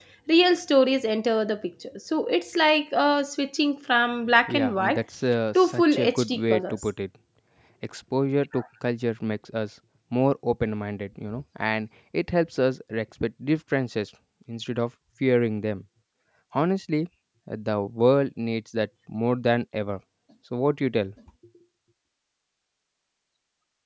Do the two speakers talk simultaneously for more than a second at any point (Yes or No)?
Yes